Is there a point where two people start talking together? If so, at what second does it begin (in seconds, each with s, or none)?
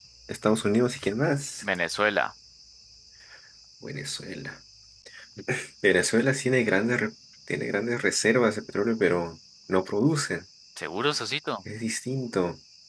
none